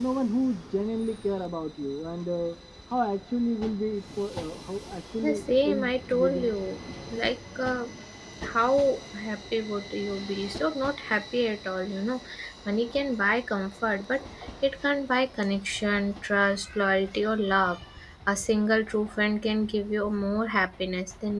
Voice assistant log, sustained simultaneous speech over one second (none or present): present